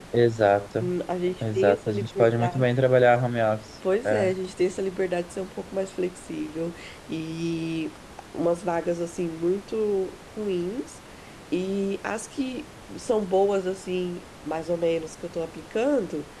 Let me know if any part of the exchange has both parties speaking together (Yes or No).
Yes